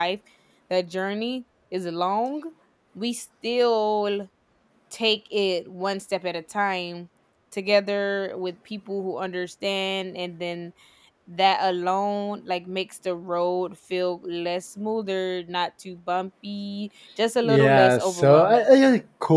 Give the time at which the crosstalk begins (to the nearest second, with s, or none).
17 s